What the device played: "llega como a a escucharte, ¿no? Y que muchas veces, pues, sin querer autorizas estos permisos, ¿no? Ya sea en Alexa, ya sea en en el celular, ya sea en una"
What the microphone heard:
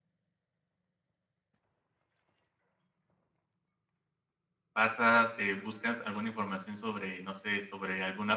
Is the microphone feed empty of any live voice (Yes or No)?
No